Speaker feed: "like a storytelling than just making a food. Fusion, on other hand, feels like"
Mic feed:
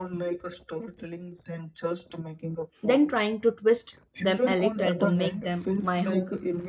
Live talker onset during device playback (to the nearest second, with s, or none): 3 s